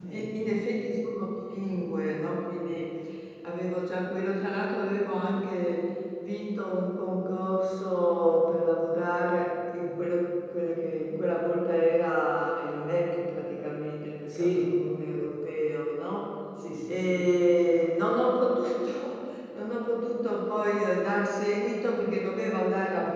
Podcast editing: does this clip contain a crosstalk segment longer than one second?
No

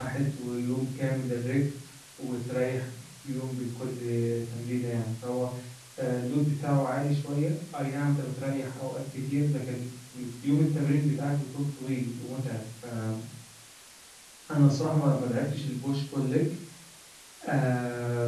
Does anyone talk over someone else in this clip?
No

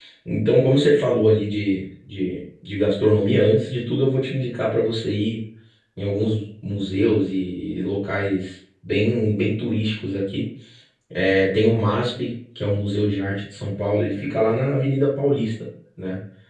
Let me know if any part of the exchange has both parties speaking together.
No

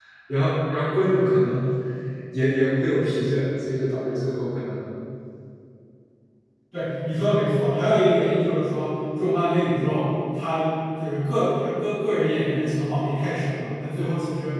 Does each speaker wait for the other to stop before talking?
Yes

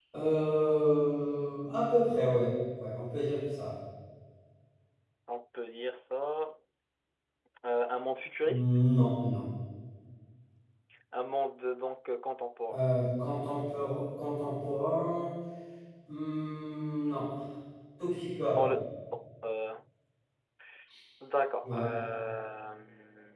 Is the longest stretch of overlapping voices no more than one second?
Yes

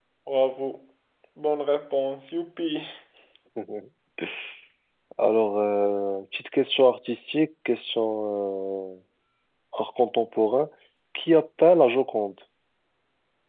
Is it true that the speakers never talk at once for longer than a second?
Yes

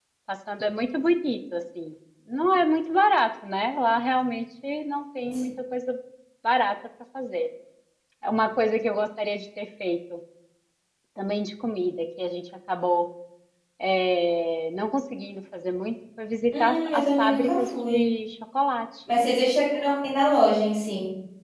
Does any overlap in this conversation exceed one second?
Yes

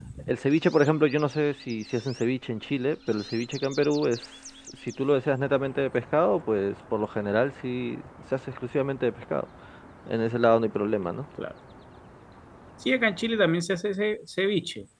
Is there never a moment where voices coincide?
Yes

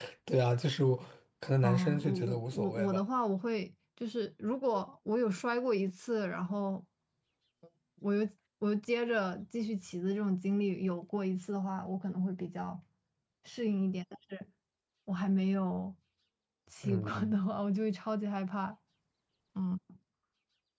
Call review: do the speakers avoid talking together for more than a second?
No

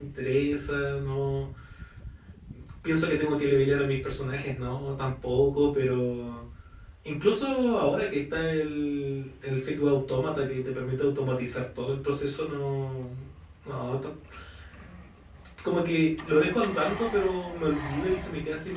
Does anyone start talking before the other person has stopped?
No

